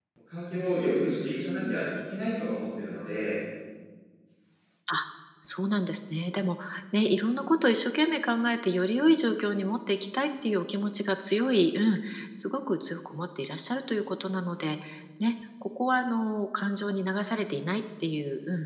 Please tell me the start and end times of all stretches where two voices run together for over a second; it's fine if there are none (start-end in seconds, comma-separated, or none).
none